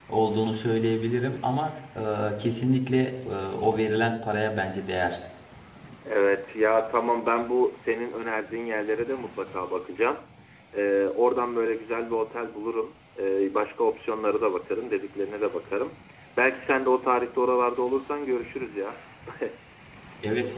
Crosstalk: none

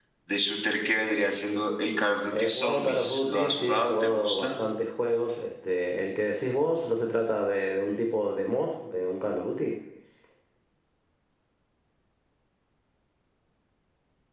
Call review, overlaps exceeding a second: present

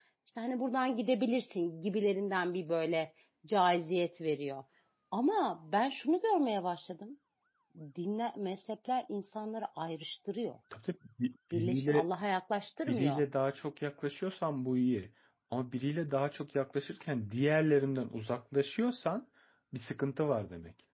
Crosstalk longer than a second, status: none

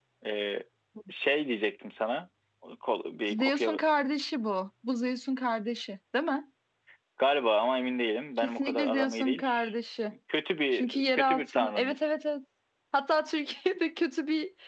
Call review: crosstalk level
present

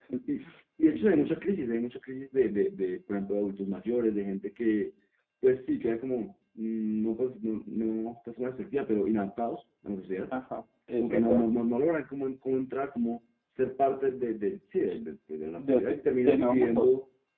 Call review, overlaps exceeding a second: present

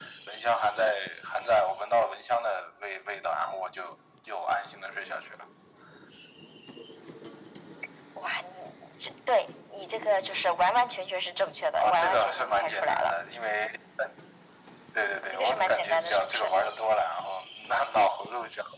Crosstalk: present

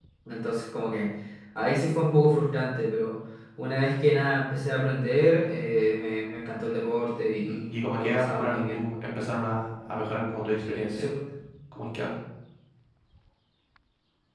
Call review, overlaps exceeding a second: present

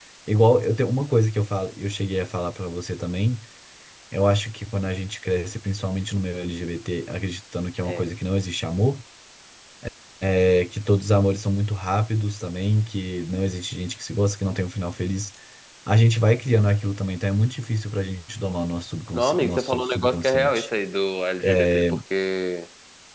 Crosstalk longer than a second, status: present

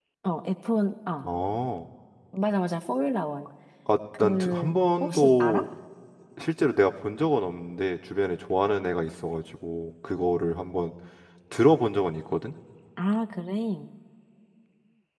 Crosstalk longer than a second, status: present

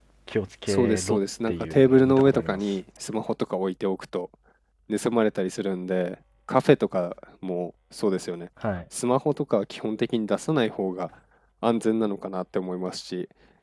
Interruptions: present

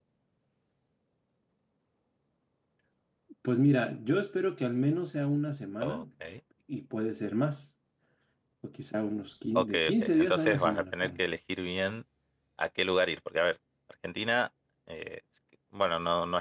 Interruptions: present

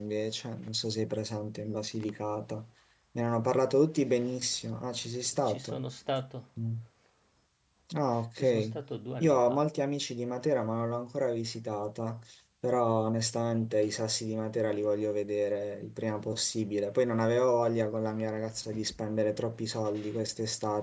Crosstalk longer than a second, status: none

